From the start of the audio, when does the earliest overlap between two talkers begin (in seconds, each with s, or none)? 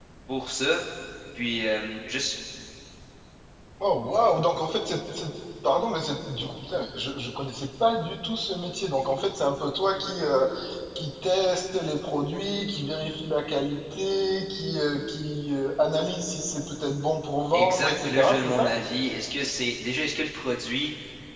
17.5 s